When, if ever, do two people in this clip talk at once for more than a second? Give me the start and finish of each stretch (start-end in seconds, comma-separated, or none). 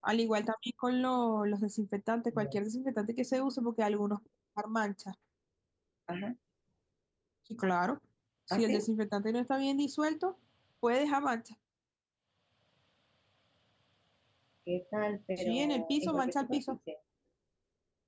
15.4-16.8